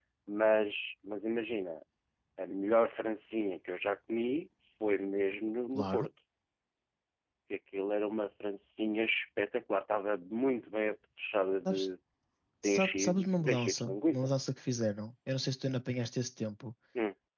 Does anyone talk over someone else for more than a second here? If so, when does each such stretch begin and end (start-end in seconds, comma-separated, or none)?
12.6-14.3